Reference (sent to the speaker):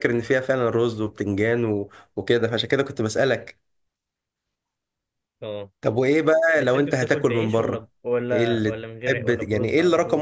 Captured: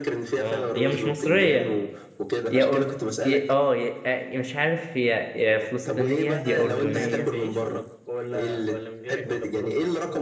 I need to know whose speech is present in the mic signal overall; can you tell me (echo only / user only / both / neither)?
both